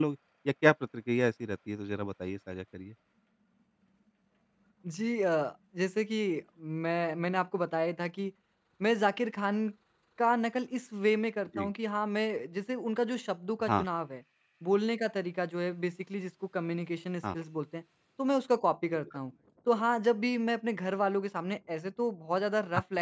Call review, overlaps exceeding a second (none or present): none